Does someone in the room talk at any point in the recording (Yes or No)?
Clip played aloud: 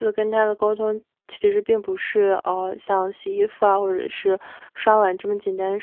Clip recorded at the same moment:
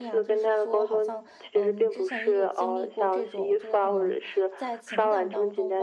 Yes